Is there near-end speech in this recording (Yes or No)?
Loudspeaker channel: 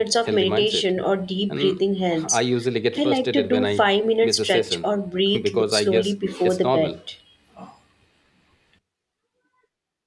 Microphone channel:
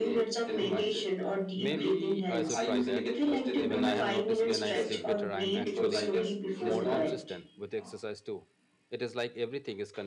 Yes